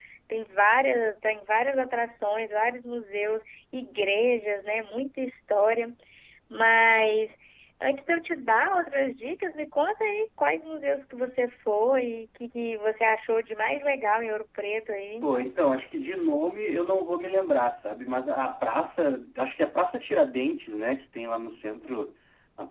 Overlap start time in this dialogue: none

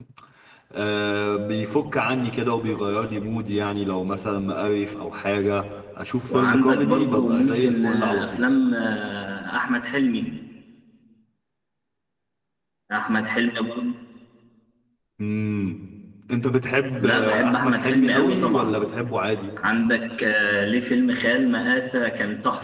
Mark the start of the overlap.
6.3 s

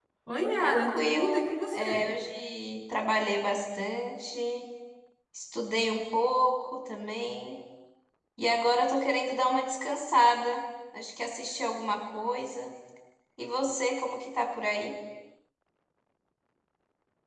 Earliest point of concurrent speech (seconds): 0.6 s

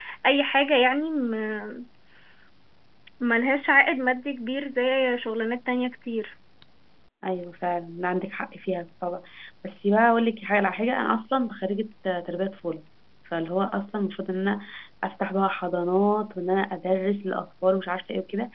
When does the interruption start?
none

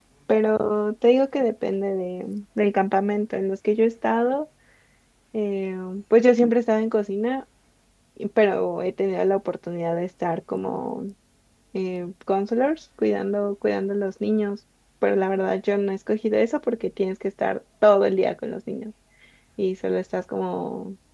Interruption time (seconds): none

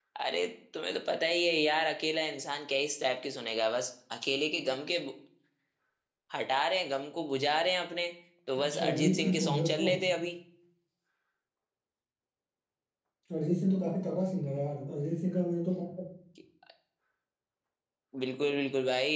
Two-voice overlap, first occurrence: 8.6 s

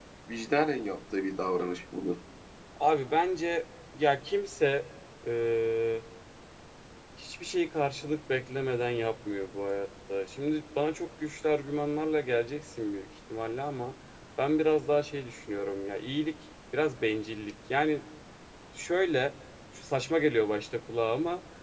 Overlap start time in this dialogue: none

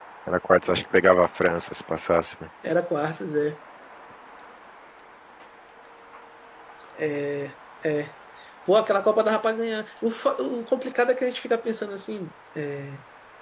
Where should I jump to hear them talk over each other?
none

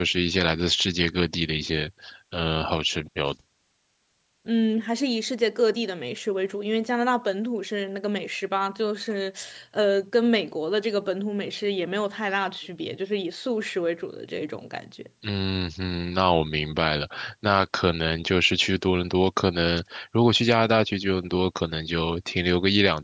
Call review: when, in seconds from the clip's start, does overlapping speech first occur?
none

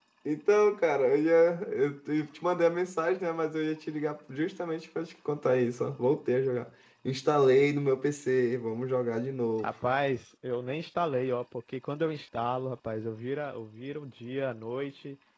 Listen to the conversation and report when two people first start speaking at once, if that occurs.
none

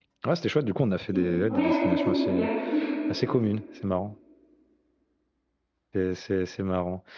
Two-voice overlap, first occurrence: 1.1 s

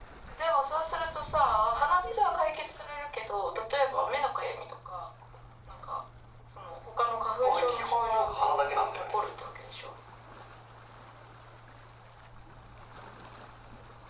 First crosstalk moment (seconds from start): 7.4 s

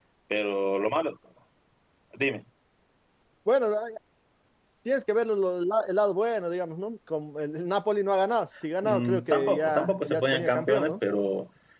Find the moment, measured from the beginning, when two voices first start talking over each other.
8.8 s

